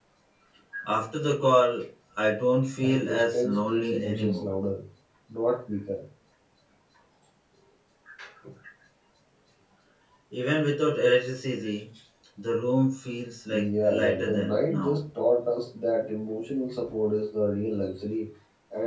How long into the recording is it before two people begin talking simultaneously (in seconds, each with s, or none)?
2.8 s